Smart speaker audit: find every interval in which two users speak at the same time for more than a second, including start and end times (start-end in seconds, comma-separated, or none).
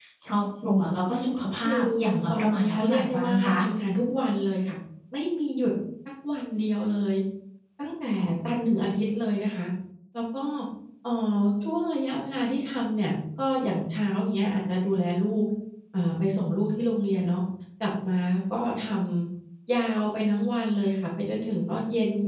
2.3-3.6